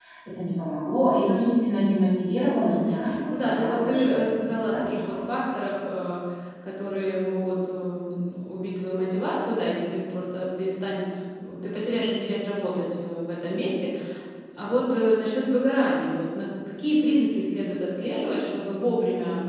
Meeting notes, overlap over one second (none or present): present